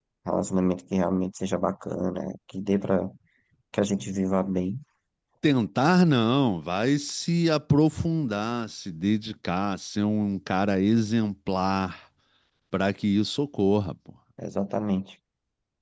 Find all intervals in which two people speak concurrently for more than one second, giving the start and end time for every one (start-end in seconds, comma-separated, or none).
none